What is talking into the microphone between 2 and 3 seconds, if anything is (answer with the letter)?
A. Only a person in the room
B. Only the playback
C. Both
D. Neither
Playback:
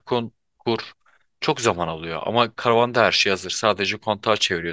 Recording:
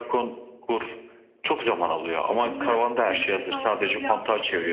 C